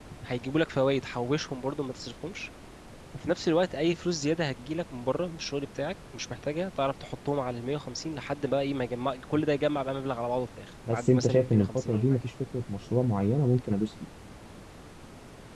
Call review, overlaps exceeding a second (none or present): present